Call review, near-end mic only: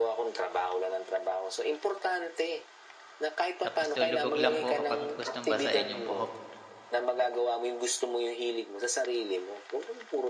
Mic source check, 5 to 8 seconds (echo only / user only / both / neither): both